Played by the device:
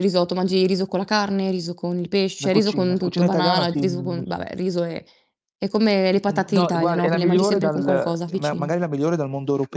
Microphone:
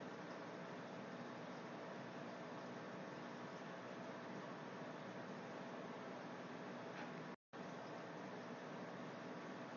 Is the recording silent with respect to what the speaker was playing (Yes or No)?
Yes